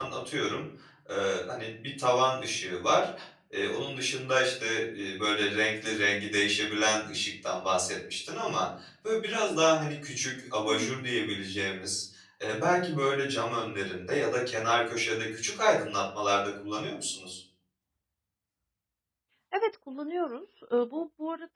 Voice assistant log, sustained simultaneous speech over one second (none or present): none